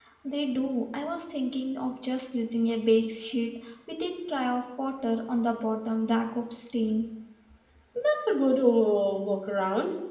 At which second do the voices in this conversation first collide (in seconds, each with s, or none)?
none